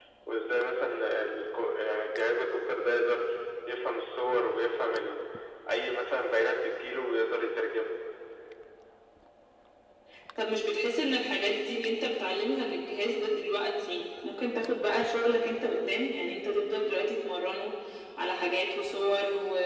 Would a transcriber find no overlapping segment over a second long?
Yes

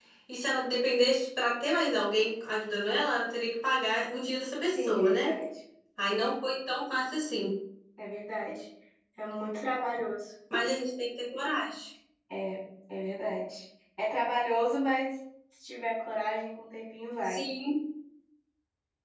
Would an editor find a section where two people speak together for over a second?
No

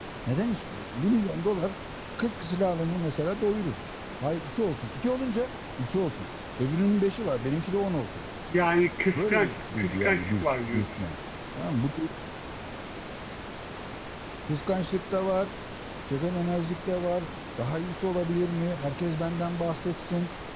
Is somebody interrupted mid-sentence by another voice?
Yes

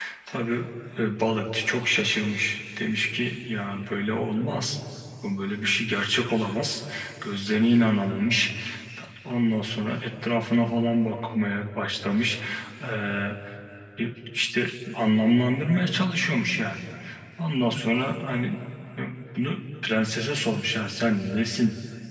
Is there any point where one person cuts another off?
No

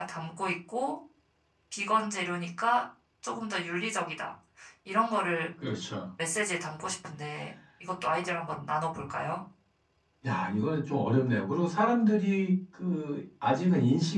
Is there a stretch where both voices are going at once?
No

